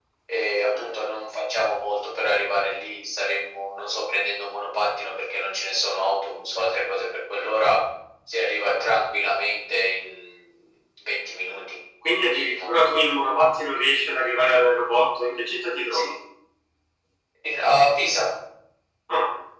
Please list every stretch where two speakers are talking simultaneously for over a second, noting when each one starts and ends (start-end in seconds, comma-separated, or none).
none